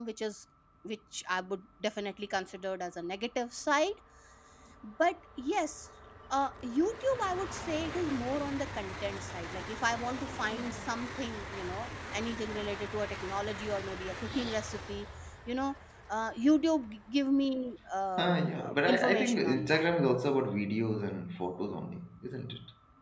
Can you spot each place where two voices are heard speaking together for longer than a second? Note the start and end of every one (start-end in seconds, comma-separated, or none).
18.2-19.8